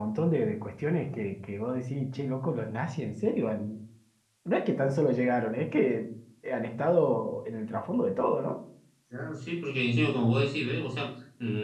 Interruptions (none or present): none